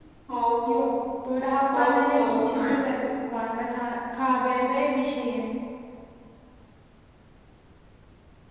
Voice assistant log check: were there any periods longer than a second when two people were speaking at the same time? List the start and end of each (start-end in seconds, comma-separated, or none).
1.7-2.9